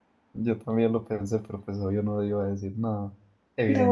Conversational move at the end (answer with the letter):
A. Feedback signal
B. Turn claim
B